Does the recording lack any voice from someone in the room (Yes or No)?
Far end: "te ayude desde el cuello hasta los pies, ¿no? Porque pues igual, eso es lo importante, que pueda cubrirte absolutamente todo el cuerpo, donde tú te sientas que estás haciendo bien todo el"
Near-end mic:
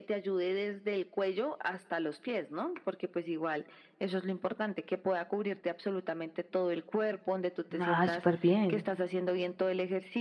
No